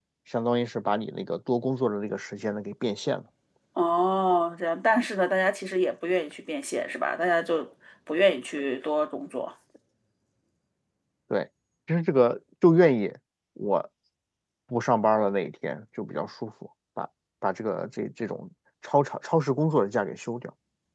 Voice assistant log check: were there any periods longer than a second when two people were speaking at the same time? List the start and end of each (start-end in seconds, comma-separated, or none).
none